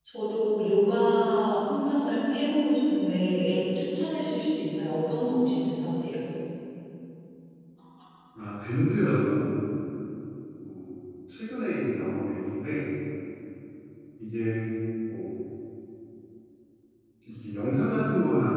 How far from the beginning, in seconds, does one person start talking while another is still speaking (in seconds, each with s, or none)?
none